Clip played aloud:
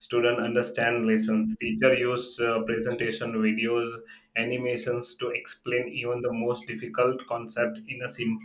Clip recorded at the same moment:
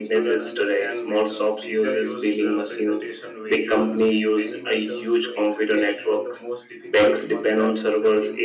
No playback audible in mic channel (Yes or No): No